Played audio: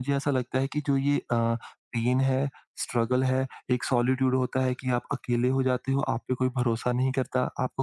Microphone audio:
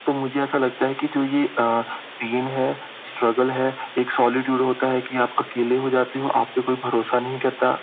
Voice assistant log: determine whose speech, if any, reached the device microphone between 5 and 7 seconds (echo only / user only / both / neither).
echo only